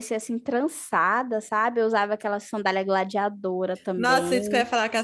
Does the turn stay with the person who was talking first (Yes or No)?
No